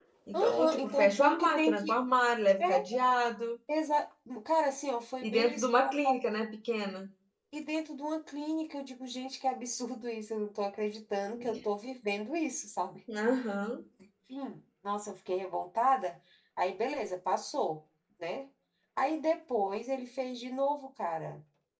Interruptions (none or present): present